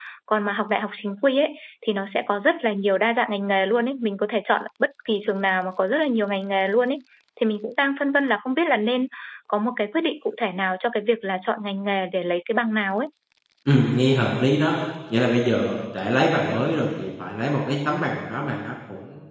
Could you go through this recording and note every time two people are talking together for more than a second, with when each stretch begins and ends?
none

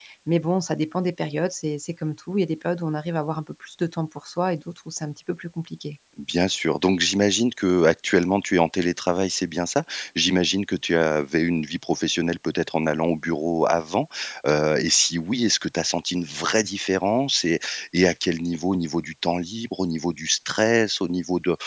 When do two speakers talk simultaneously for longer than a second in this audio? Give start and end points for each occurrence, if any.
none

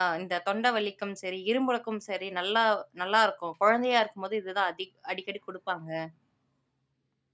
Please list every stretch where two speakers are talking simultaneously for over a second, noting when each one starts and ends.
none

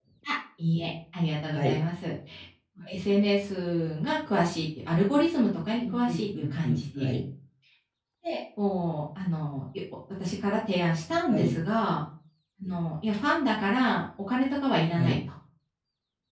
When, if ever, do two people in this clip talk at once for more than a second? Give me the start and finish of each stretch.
5.8-7.1

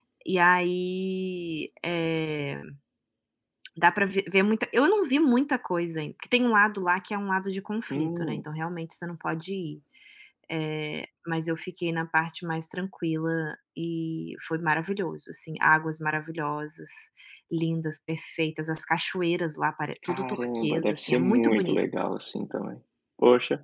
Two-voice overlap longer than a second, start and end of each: 20.0-21.8

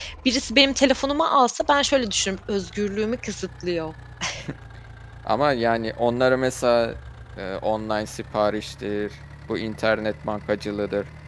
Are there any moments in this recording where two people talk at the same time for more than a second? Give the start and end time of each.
none

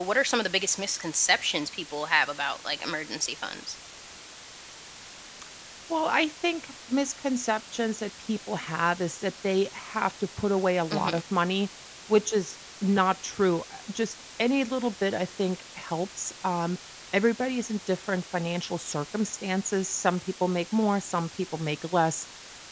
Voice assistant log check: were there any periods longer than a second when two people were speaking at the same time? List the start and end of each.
none

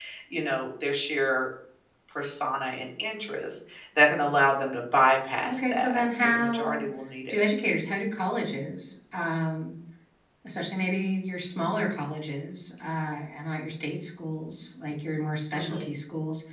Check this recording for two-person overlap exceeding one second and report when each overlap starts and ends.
5.5-6.8

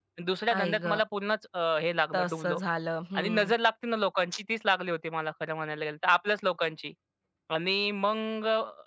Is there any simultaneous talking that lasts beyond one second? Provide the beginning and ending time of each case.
none

